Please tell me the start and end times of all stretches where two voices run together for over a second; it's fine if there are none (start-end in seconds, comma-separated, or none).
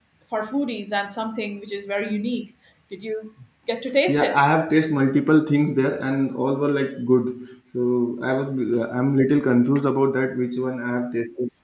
none